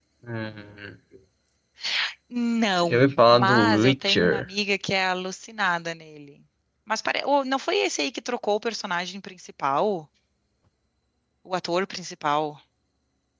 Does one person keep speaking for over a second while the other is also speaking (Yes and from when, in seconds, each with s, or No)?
Yes, from 2.8 s